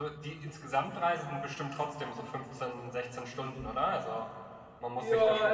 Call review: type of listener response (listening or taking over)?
taking over